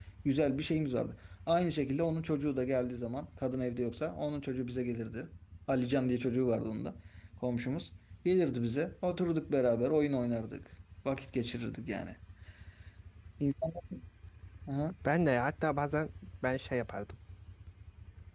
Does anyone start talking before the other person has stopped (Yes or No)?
No